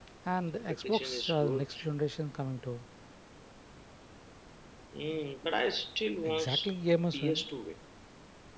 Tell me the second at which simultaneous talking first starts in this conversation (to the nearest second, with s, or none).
1 s